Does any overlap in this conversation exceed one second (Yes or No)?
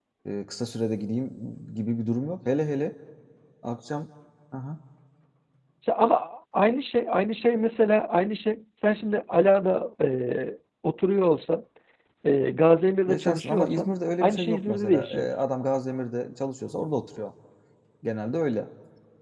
Yes